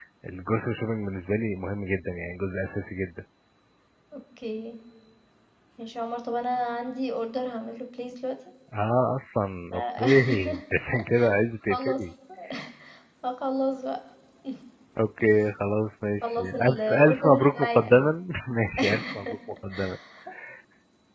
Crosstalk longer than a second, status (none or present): present